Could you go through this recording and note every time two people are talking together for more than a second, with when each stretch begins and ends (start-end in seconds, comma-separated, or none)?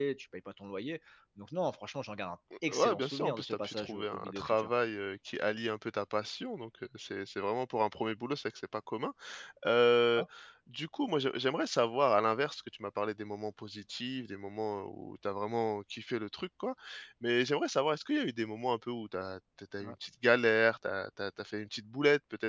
2.7-4.7